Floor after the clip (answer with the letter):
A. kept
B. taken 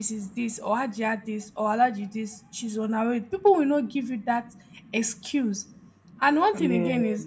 A